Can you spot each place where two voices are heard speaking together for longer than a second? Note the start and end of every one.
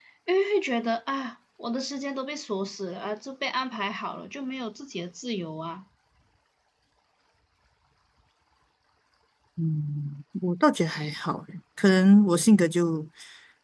none

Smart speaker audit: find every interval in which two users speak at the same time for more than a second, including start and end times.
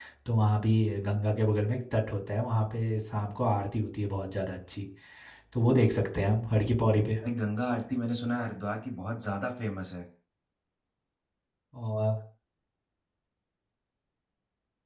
none

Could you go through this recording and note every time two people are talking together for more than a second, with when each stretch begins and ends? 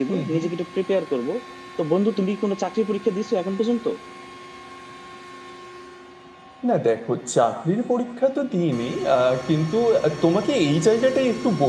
none

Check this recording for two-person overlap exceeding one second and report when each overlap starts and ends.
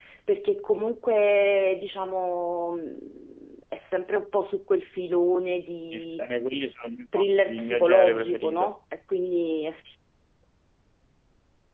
7.5-8.7

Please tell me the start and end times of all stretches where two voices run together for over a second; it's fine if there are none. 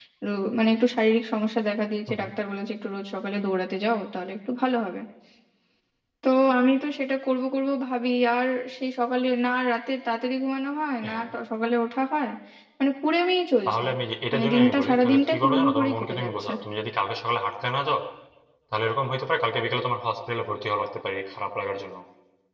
14.3-16.5

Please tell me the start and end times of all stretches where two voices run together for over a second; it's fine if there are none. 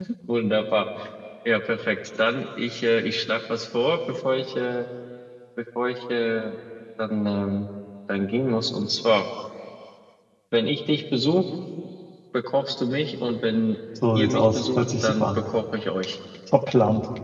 14.1-15.4

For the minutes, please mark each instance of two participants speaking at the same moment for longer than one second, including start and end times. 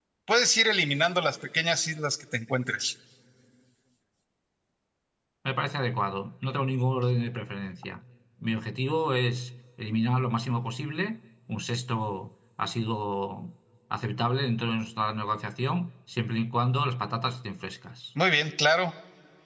none

